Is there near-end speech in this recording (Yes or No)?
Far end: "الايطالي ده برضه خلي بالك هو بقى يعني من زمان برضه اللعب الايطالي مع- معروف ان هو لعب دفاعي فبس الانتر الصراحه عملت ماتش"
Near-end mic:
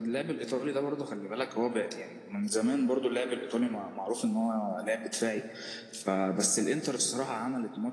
No